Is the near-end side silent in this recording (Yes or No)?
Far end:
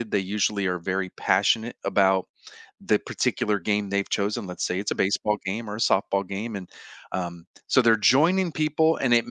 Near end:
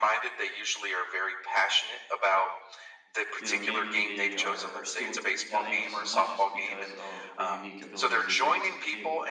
No